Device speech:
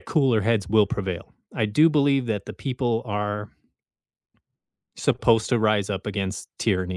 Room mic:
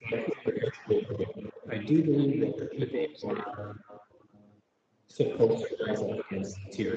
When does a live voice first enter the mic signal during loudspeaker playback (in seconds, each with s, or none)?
2.8 s